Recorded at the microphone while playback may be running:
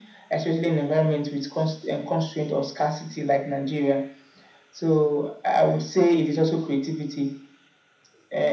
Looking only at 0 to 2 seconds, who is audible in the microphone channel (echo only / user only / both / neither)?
echo only